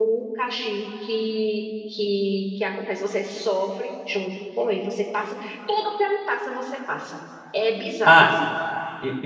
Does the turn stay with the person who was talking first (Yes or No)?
No